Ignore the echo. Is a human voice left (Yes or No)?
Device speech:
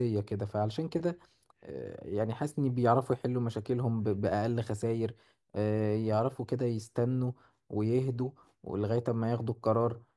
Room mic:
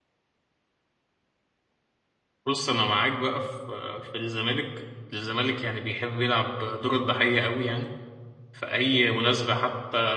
Yes